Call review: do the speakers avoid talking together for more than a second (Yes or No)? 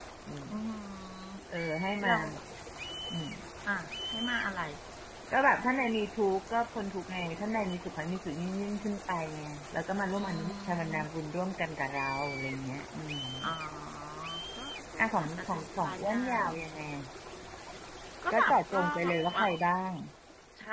No